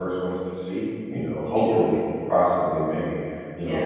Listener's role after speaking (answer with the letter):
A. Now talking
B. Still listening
B